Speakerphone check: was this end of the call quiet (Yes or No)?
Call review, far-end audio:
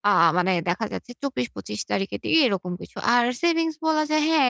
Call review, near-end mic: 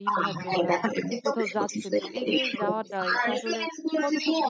No